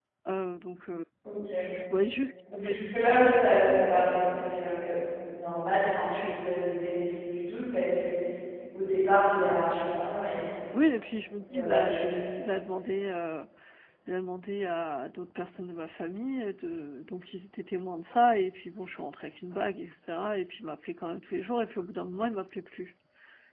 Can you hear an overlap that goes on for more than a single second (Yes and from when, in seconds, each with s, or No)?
No